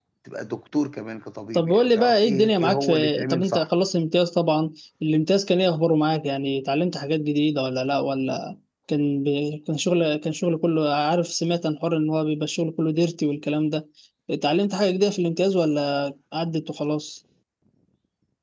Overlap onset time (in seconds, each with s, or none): 1.5 s